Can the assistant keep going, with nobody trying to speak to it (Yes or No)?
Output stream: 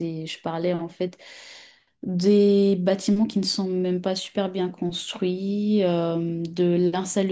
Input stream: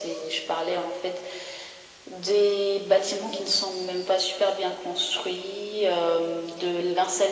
Yes